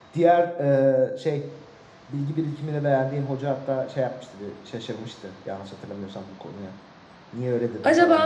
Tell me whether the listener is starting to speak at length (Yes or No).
Yes